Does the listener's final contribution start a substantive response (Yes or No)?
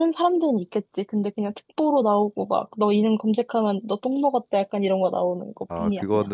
Yes